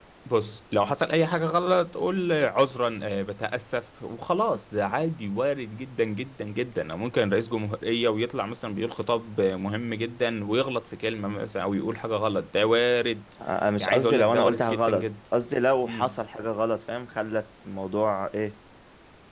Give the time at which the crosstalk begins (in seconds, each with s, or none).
13.8 s